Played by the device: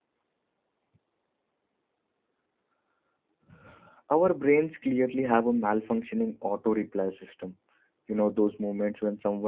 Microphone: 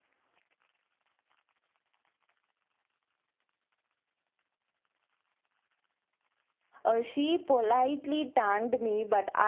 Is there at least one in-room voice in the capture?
Yes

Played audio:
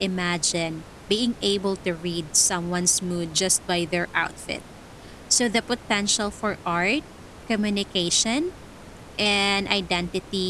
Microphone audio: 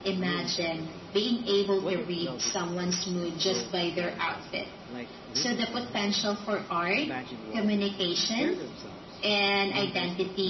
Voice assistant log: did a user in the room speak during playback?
Yes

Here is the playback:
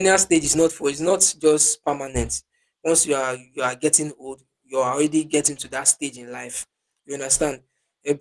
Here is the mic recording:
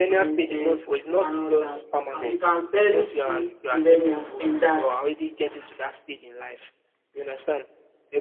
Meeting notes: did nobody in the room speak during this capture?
No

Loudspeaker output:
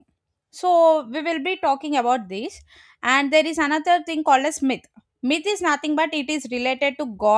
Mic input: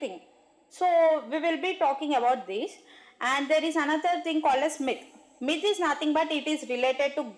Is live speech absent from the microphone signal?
Yes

